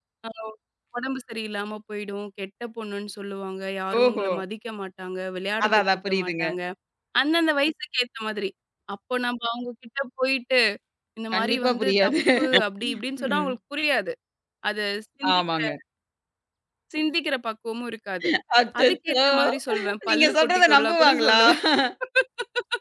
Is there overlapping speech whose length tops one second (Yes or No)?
Yes